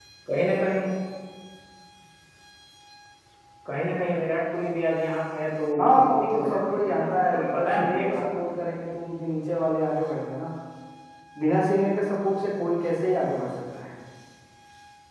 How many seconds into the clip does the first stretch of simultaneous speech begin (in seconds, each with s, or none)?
5.8 s